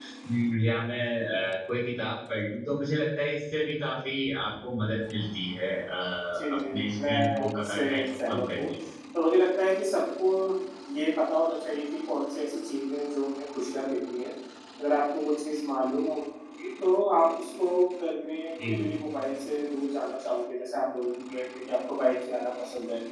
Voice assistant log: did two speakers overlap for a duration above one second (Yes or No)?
Yes